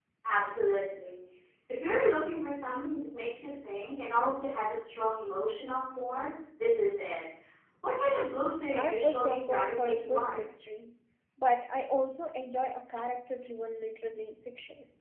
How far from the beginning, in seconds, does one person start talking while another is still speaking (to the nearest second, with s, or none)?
9 s